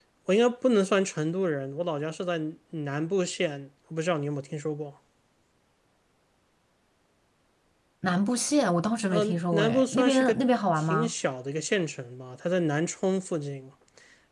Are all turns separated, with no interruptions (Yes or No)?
No